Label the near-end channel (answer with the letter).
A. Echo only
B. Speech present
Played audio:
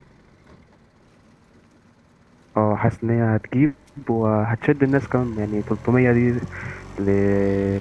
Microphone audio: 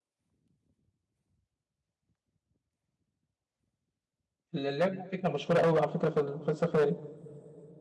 B